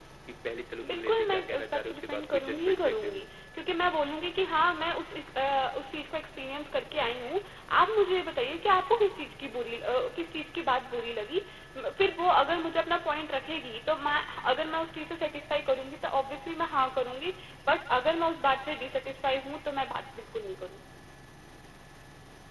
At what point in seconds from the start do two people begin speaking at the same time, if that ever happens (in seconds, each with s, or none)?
0.8 s